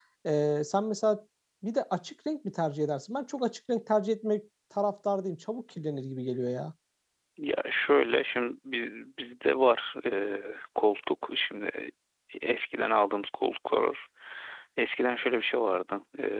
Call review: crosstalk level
none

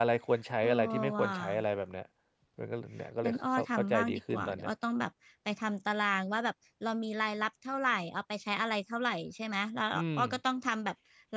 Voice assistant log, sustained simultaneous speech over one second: present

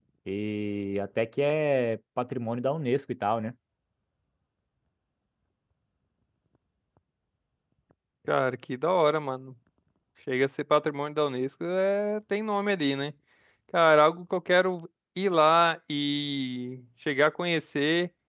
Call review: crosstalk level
none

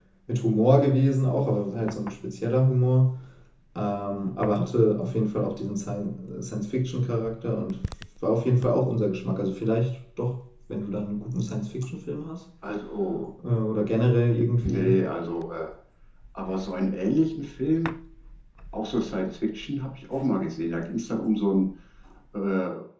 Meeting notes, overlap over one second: none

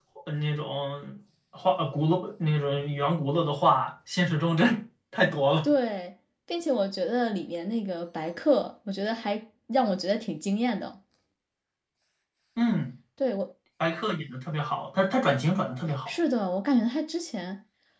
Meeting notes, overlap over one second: none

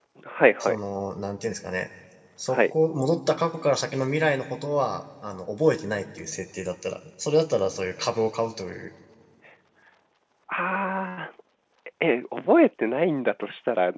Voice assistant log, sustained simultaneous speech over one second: none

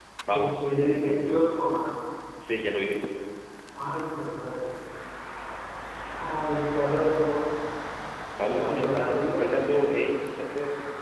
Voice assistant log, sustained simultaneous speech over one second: present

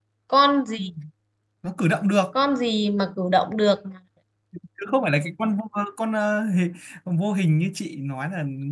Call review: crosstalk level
none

